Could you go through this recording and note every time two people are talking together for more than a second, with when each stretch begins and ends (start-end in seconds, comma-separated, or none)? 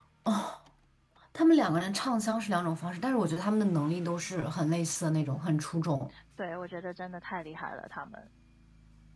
none